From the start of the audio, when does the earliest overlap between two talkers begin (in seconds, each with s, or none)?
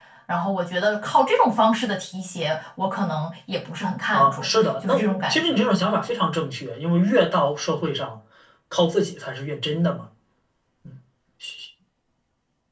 4.1 s